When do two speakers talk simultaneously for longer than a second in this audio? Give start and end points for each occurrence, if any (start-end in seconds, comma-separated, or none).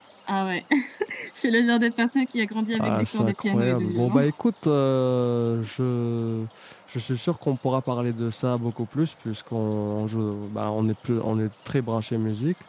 2.8-4.2